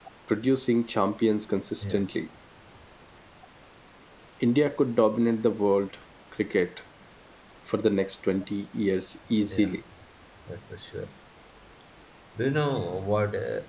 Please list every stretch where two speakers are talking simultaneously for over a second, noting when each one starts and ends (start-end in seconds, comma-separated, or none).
none